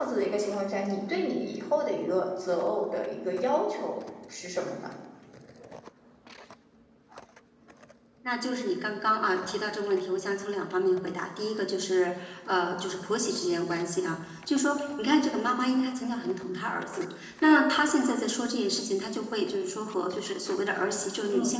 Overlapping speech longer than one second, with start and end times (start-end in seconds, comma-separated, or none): none